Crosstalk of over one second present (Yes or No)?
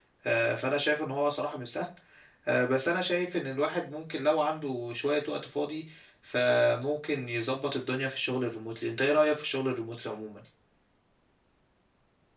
No